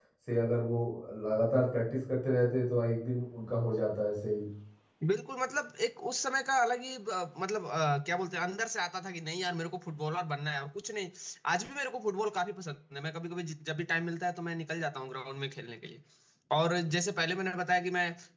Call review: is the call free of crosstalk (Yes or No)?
Yes